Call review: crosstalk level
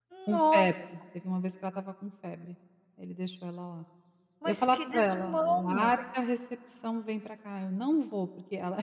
present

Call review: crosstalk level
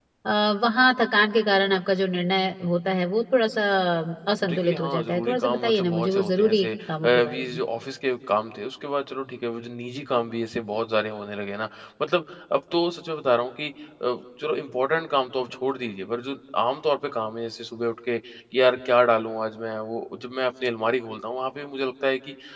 present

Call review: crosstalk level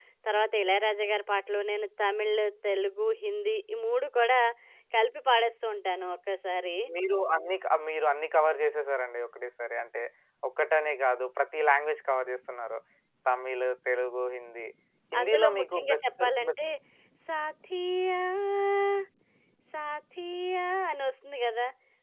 present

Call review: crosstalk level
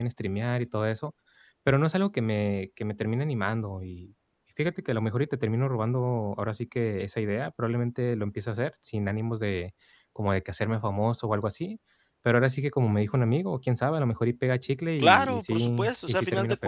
present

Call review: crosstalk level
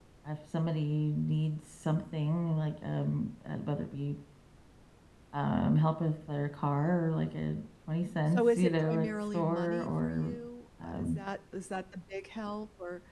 present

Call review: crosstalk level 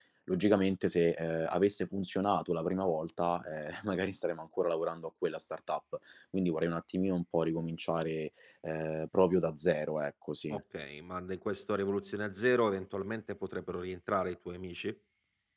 none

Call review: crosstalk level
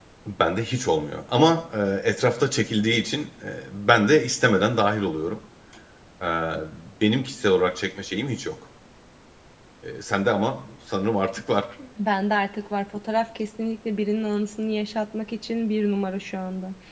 none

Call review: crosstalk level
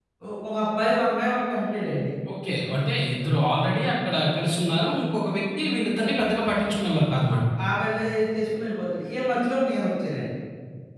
none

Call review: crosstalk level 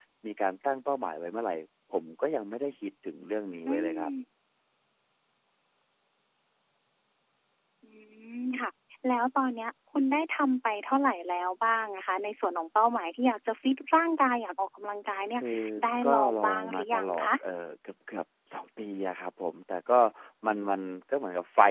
present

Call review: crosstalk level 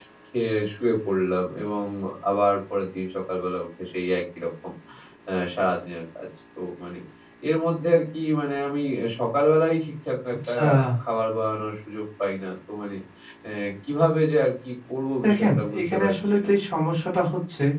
present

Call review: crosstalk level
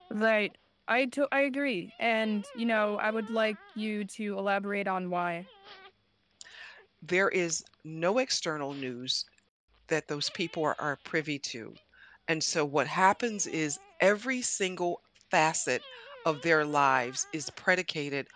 none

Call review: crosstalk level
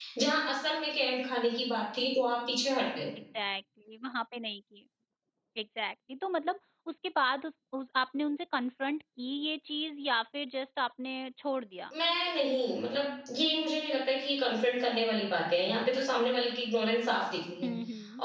none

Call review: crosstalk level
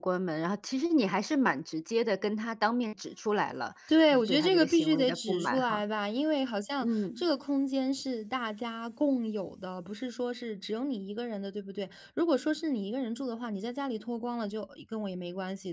present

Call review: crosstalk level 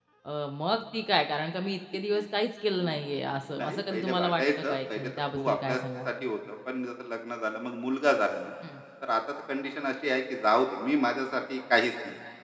present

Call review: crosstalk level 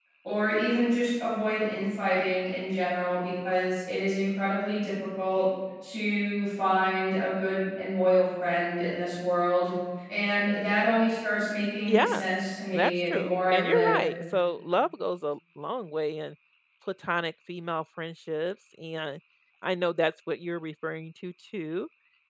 present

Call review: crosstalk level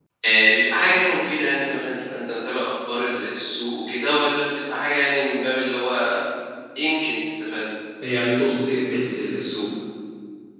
none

